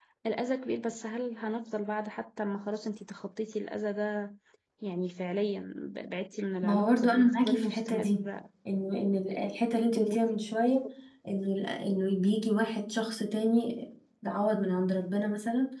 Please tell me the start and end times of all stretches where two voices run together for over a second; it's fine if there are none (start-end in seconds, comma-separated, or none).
6.6-8.2